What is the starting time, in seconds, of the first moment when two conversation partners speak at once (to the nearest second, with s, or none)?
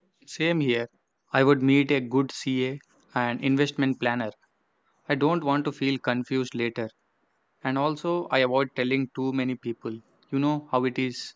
none